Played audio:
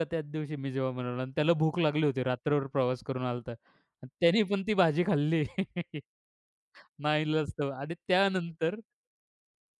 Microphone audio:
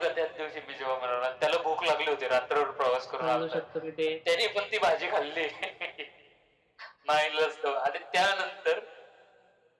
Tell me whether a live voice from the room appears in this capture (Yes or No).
Yes